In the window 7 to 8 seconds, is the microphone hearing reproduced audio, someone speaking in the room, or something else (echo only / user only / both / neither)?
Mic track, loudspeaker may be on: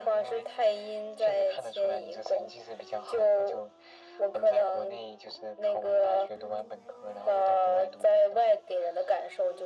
echo only